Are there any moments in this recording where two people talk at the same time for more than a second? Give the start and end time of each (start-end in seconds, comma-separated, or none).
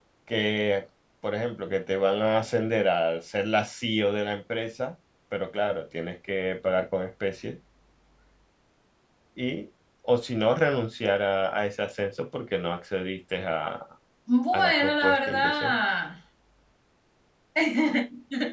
14.5-15.8